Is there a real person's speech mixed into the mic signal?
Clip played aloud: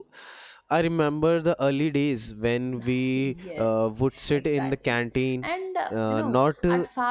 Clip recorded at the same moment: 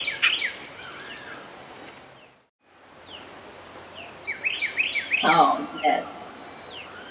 Yes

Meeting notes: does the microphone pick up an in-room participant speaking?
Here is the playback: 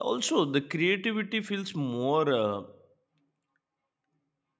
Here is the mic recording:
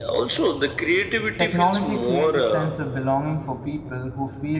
Yes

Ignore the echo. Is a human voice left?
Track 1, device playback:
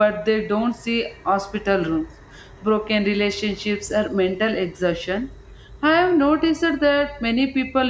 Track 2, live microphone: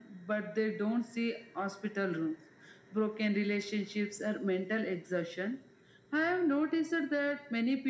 No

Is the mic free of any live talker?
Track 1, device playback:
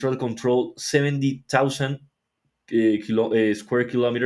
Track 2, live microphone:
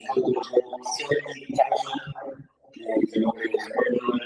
Yes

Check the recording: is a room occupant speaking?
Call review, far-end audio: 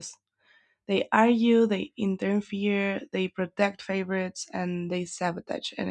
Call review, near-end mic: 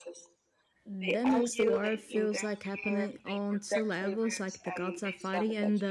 Yes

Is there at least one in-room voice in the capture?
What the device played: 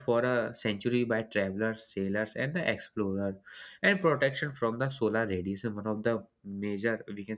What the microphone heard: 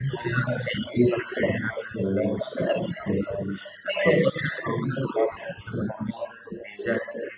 No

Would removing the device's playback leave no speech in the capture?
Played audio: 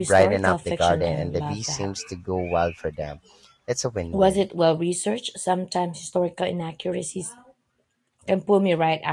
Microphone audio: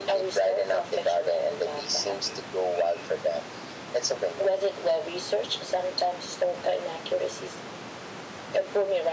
Yes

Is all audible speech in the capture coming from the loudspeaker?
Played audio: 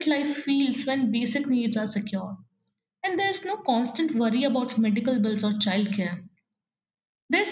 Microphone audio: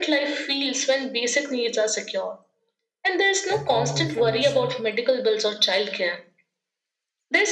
No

